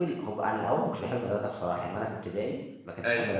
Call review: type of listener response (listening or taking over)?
listening